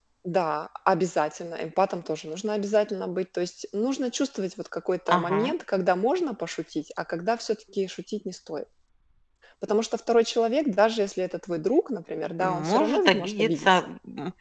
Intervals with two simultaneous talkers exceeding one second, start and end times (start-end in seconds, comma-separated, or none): 12.4-13.9